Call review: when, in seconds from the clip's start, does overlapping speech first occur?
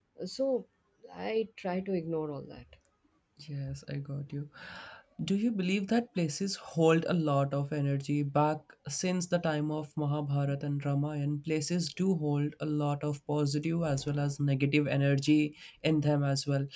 none

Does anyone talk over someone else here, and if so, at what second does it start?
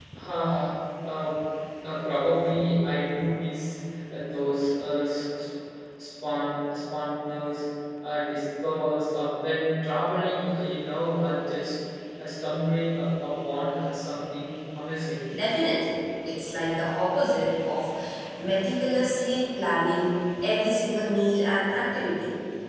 none

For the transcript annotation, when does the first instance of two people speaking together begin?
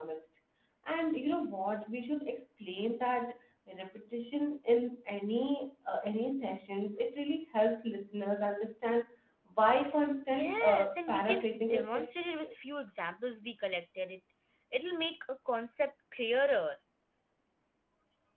10.3 s

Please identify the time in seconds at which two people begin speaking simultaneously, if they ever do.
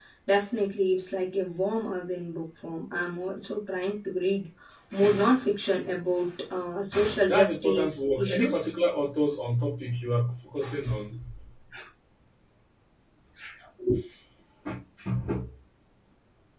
7.3 s

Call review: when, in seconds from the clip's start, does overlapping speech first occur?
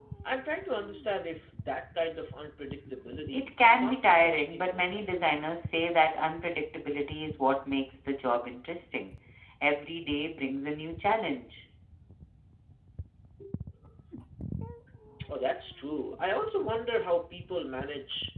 3.2 s

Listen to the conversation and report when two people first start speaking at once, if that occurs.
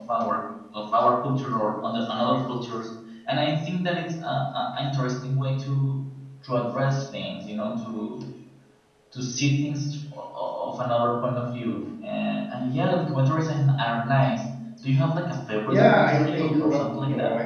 15.7 s

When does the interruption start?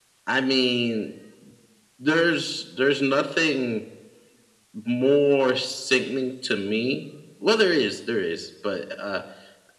none

